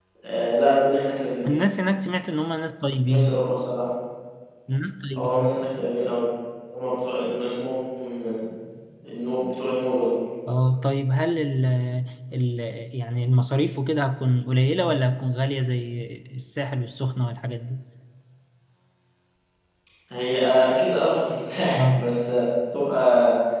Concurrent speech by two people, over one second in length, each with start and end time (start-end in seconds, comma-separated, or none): none